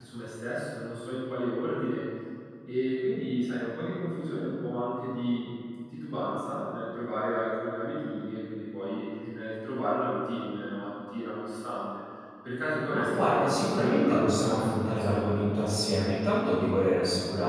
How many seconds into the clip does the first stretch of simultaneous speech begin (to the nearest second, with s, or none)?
13 s